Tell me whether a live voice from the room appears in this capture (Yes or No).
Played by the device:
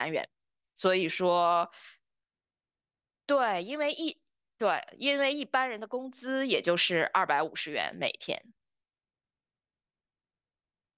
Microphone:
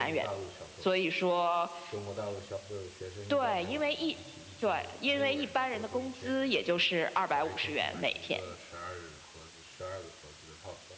Yes